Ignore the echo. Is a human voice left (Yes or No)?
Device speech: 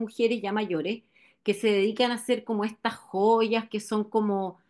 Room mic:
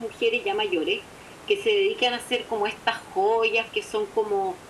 No